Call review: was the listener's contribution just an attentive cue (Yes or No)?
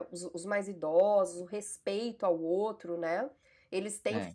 Yes